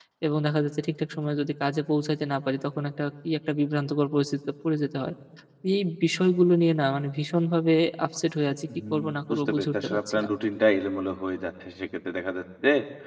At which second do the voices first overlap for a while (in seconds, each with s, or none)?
8.7 s